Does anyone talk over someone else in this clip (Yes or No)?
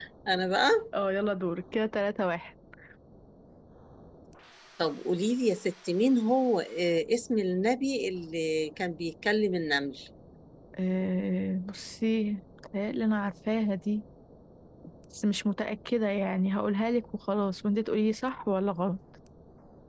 No